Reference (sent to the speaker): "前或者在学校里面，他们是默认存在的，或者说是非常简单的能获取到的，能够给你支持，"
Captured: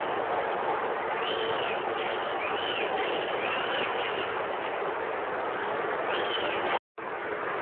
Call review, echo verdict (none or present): none